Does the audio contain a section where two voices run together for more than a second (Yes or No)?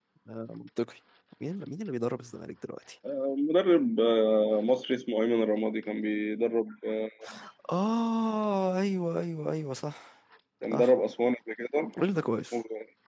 No